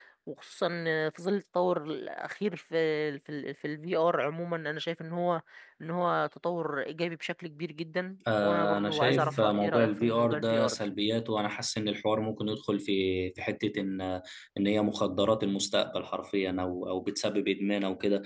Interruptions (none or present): present